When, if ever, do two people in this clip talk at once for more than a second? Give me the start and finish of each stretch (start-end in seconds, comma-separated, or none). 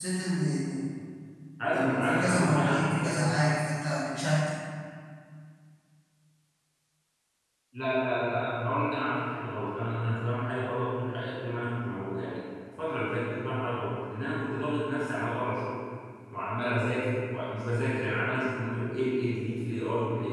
1.7-3.2